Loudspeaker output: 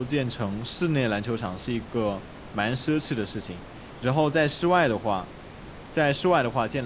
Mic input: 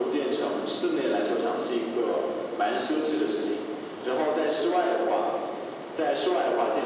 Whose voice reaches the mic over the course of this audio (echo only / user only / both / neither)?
echo only